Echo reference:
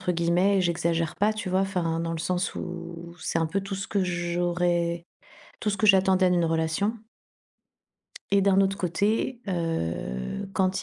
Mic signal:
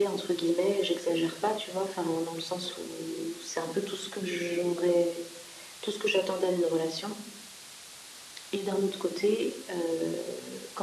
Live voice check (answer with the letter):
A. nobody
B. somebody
A